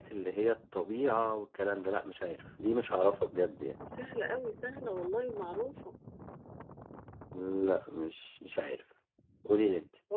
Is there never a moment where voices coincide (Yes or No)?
Yes